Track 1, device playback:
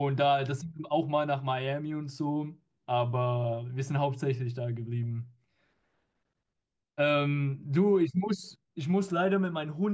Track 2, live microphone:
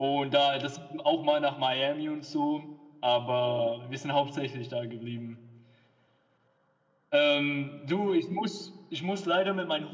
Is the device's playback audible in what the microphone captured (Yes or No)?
Yes